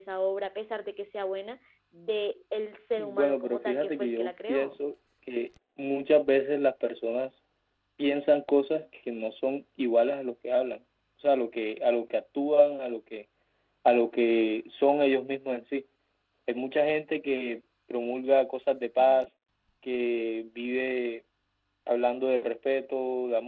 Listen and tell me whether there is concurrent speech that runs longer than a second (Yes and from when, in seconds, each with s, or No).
Yes, from 3.0 s